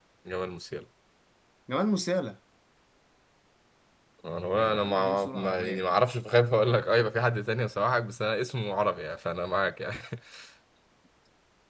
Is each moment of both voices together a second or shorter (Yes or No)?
No